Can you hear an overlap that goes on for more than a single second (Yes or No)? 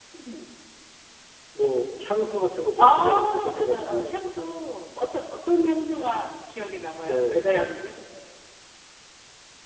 Yes